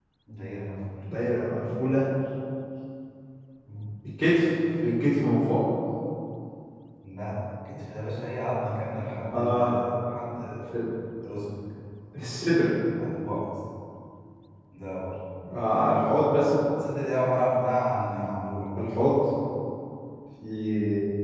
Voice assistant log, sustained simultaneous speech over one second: none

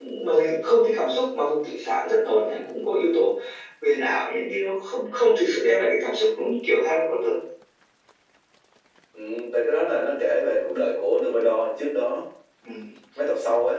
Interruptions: none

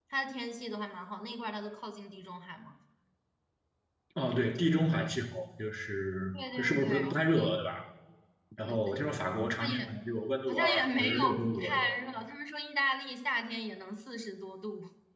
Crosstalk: present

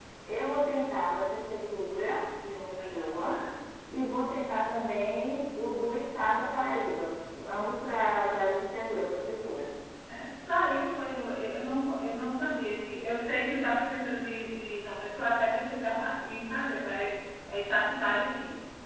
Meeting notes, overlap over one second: none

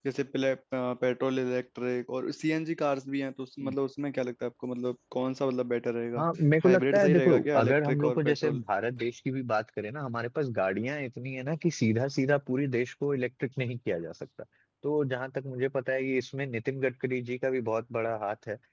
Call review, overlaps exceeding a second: present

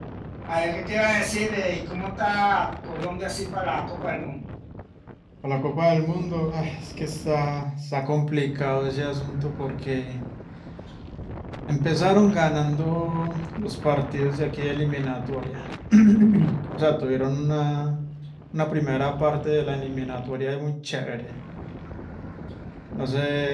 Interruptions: none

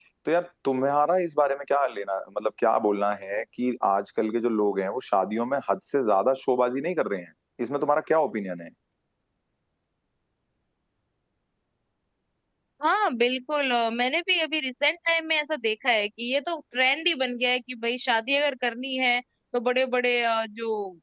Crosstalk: none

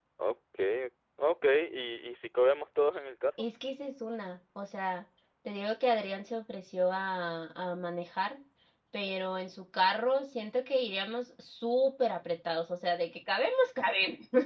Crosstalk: none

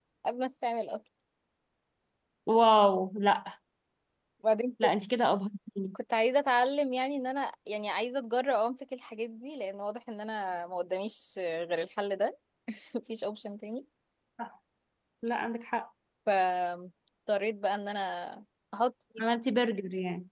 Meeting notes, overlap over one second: none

